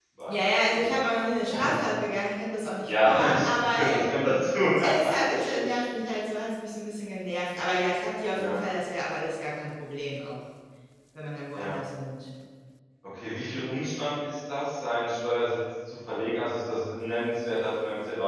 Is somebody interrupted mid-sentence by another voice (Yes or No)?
Yes